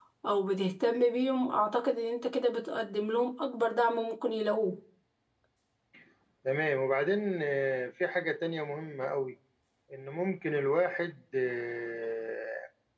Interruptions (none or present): none